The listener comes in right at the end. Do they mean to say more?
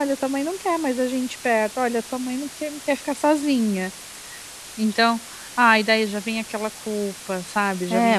Yes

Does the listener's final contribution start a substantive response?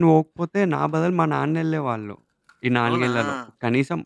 No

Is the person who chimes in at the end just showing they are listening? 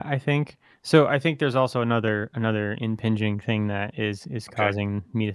Yes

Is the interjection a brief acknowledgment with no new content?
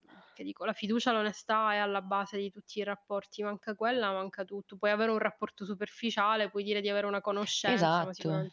No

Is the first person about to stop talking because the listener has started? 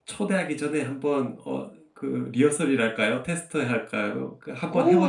Yes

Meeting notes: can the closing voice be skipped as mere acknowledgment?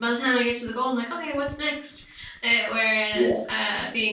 Yes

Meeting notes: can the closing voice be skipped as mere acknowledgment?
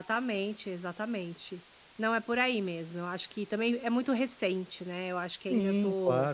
No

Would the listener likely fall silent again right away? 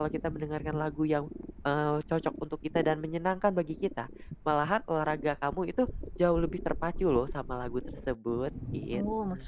No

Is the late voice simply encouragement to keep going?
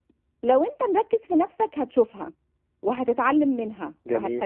Yes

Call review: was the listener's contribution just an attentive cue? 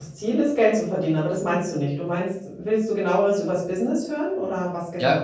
No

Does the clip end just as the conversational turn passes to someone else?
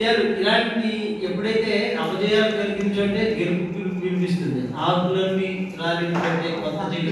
Yes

